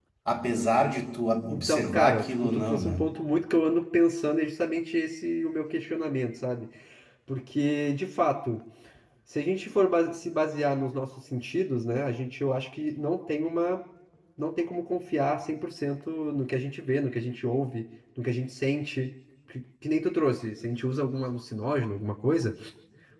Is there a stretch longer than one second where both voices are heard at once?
Yes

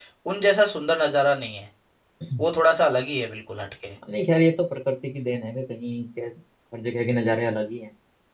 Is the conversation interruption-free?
Yes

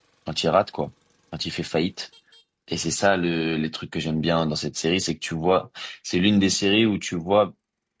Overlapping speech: No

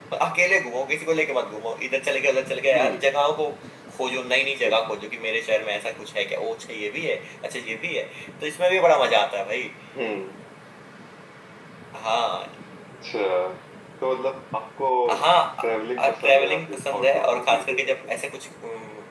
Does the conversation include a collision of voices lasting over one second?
Yes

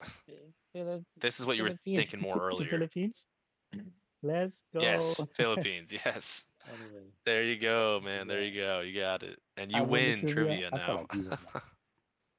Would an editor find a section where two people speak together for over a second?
Yes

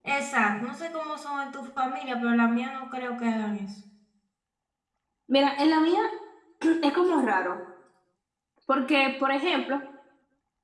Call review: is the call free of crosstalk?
Yes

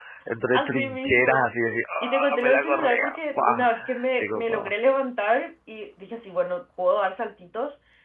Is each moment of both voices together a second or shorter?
No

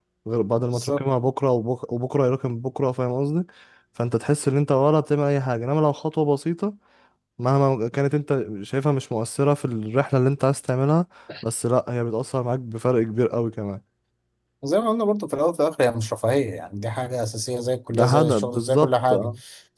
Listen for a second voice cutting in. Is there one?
Yes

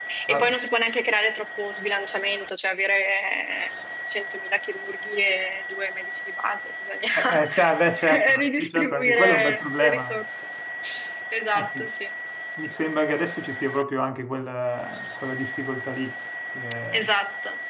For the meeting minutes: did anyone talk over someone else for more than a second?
Yes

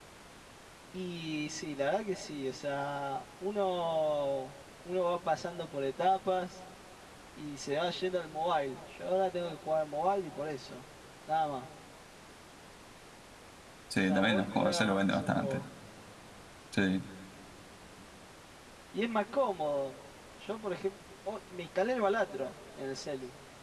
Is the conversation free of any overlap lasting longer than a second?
No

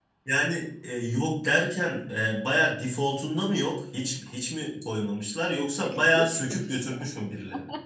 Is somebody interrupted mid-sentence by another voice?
Yes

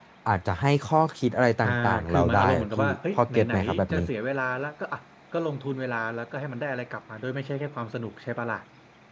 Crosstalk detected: Yes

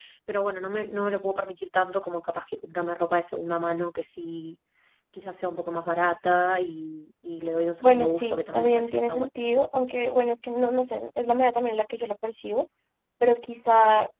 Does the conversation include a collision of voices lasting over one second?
Yes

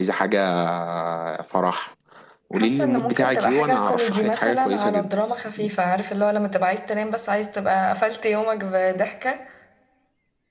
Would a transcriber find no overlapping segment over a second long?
No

